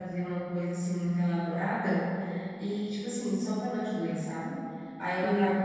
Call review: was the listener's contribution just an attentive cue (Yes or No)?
Yes